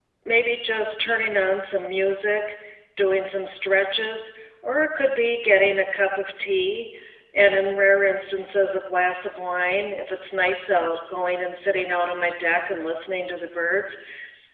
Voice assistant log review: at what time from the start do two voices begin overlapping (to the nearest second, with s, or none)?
none